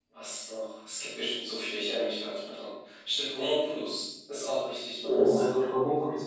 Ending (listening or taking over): taking over